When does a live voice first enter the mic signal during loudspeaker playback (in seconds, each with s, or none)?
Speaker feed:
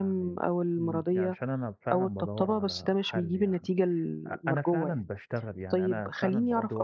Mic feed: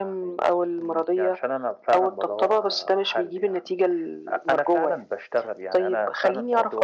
none